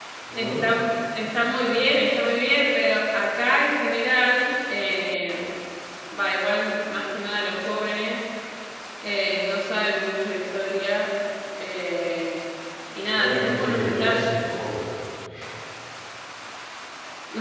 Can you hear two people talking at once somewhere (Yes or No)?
Yes